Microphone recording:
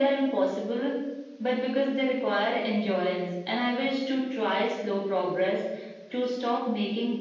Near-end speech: none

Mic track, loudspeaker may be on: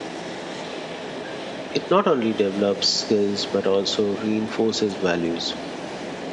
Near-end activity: present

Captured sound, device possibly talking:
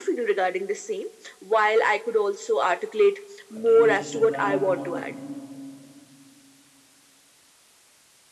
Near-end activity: present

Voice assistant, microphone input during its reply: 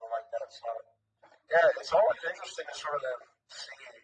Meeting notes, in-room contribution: none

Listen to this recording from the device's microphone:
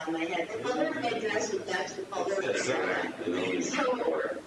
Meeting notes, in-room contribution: present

